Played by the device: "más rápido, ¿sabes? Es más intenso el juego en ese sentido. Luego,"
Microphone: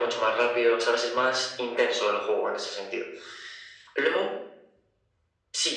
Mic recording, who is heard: echo only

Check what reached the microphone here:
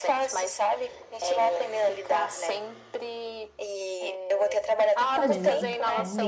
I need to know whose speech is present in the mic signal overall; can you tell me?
both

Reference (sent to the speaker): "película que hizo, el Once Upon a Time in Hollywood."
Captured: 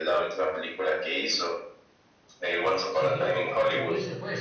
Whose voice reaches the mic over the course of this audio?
both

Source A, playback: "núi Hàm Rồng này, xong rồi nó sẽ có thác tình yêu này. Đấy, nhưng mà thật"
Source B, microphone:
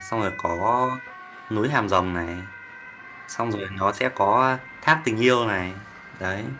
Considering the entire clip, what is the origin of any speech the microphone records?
echo only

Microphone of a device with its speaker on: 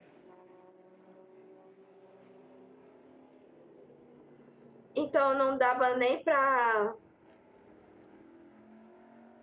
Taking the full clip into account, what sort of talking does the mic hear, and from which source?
user only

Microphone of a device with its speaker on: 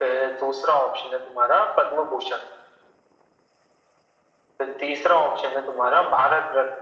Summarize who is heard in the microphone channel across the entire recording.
echo only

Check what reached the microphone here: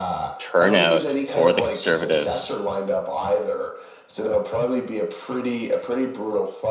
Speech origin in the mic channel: both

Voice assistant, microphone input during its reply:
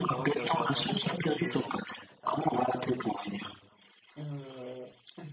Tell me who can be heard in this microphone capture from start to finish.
both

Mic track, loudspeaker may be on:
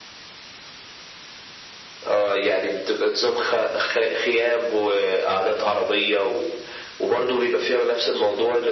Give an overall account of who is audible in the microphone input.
echo only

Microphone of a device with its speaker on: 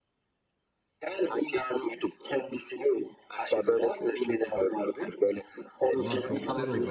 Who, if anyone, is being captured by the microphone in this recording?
both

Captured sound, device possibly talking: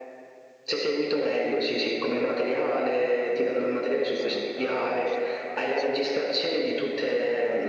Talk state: both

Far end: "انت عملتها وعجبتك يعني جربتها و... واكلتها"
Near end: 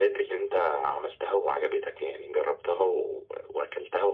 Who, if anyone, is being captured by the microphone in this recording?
echo only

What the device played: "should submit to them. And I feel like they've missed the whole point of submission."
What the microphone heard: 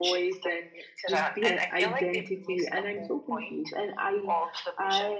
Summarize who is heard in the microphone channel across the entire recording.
both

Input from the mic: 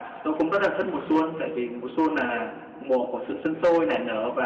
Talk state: echo only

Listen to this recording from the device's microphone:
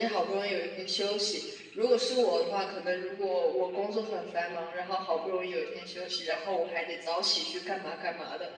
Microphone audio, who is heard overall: echo only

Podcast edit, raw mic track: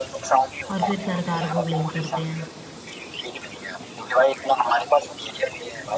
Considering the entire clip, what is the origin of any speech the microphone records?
both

